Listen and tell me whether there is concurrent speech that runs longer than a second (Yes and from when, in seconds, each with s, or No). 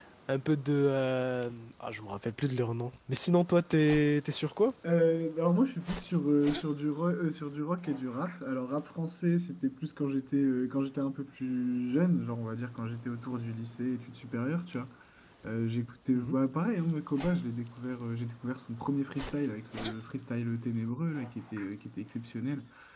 No